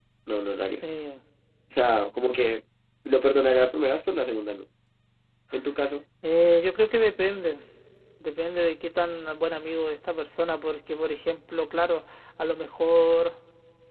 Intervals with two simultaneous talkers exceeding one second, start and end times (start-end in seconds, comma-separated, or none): none